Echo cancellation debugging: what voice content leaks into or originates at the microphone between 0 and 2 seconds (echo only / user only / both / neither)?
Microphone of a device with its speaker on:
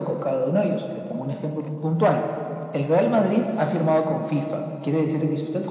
echo only